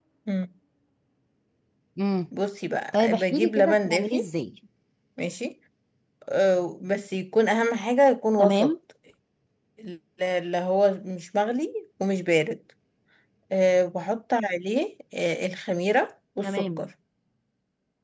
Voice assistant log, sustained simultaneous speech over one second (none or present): present